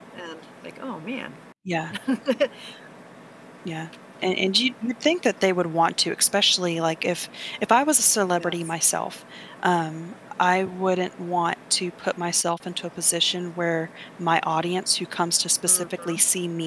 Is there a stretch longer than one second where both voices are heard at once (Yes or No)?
No